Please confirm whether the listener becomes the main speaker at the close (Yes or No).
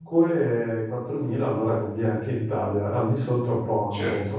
Yes